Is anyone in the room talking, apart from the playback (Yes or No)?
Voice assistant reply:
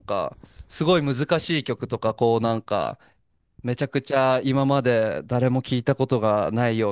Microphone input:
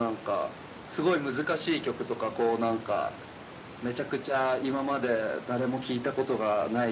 No